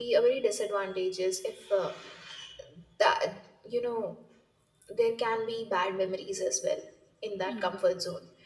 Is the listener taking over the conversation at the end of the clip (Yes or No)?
No